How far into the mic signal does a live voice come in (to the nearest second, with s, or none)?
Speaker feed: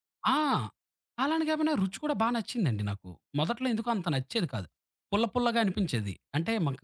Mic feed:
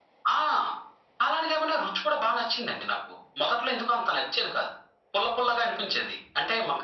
none